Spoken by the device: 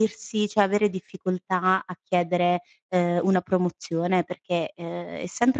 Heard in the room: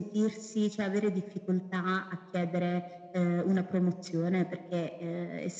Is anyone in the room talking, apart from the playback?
No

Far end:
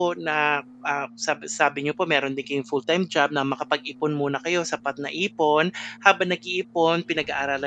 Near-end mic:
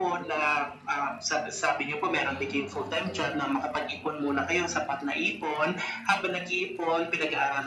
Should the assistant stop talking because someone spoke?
Yes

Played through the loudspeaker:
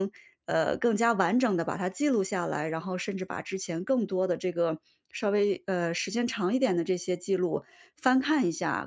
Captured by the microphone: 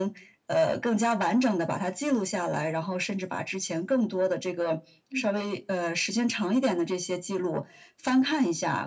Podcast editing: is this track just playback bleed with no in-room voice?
No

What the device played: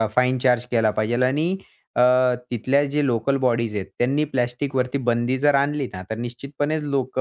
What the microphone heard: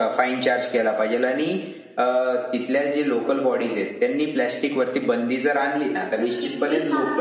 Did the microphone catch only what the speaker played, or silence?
No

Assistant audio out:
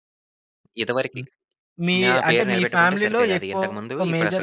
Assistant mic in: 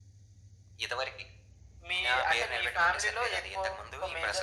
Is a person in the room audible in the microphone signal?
No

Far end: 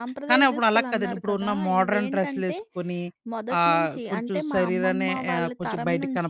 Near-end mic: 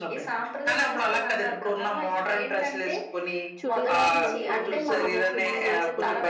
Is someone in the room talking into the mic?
Yes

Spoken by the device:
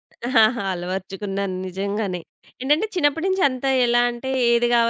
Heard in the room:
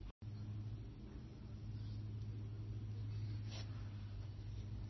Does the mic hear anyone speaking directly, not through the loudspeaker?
No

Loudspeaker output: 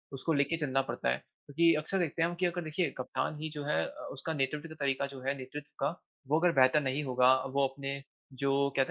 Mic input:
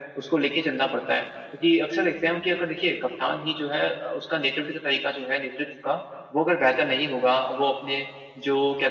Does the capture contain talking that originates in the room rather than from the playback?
No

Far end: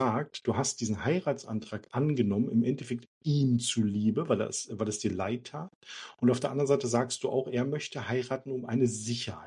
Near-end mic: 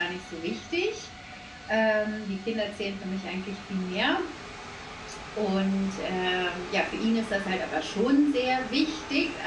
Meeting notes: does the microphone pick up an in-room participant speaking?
Yes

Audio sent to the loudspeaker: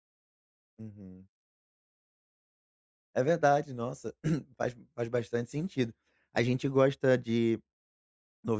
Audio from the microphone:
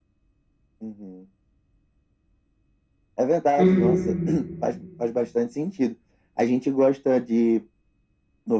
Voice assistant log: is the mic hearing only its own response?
No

